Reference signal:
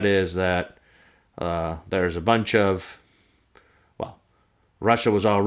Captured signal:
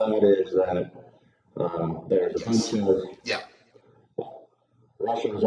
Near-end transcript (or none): Yes. Yeah.